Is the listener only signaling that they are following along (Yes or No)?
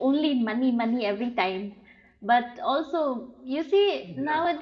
Yes